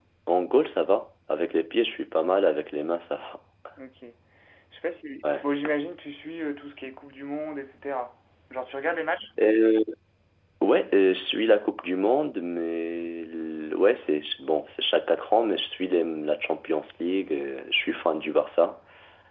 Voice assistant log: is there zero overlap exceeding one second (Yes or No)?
Yes